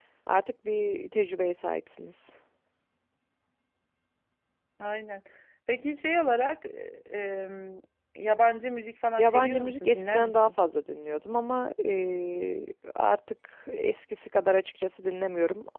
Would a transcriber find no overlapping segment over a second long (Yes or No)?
No